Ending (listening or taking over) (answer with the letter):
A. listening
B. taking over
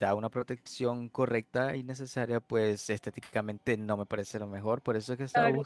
A